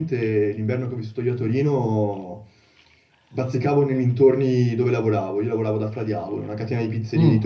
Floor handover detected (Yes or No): No